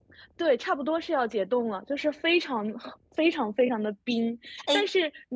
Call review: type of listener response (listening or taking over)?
listening